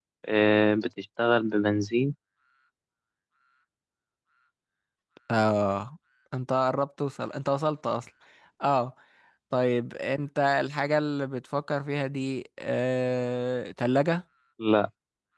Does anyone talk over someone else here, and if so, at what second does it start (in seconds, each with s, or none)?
none